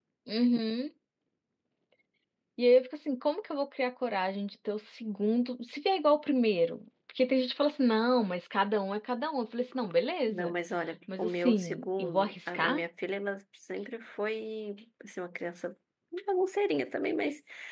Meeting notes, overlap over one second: present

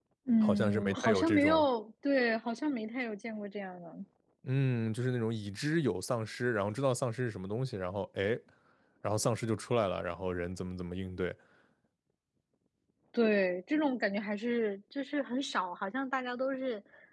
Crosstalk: present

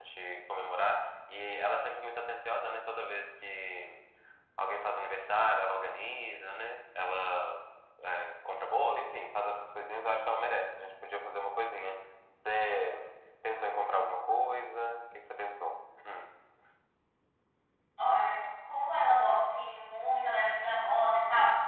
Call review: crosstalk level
none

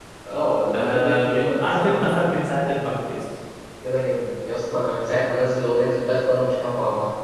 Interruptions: present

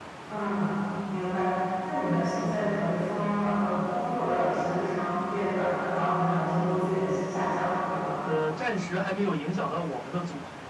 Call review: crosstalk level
none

